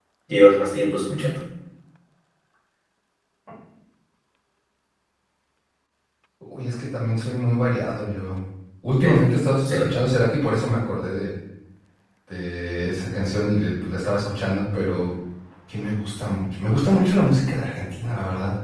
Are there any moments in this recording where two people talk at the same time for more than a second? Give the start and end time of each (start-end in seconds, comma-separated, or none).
none